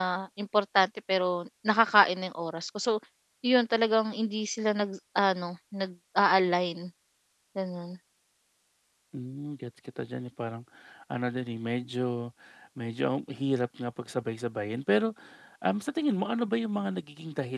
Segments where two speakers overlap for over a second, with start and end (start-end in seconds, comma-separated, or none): none